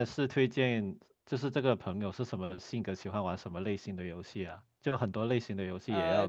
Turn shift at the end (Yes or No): Yes